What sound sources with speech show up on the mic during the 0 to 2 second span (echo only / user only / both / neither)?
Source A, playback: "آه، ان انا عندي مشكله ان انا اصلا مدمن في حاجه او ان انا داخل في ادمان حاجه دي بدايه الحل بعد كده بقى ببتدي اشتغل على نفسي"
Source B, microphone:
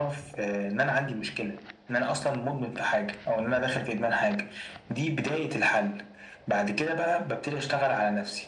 echo only